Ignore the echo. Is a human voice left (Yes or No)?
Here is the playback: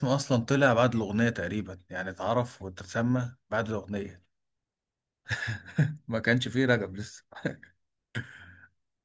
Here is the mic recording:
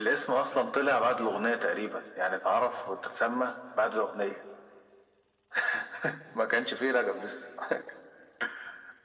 No